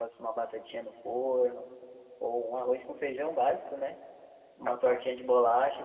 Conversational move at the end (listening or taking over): listening